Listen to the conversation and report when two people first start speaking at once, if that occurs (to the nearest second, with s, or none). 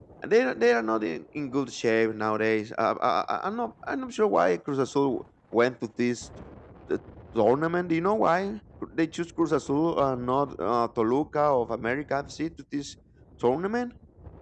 none